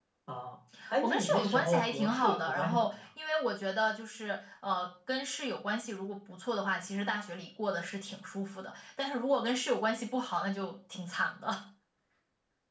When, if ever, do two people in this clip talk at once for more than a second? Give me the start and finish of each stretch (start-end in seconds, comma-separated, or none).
1.0-2.9